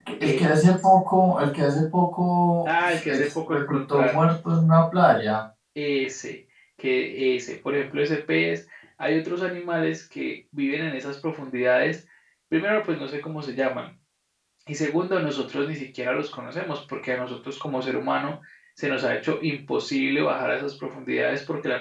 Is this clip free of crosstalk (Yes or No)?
No